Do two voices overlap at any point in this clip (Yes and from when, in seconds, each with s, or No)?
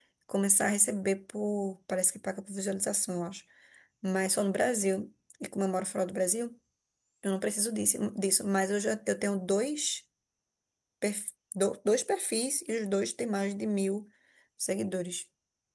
No